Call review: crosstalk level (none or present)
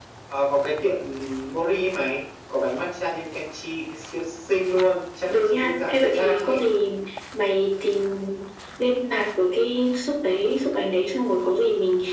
present